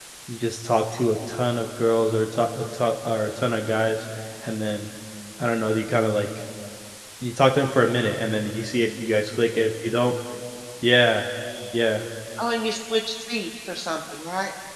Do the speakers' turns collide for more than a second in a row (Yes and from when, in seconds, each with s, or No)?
No